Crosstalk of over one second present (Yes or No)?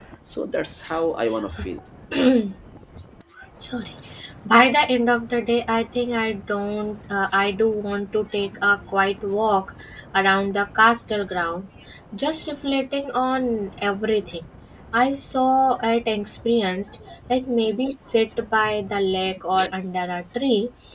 No